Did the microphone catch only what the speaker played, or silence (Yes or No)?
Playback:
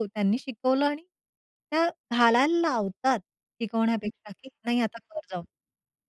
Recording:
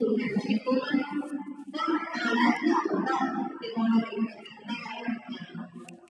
Yes